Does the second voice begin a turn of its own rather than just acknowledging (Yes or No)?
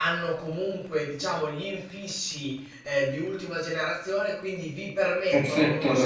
No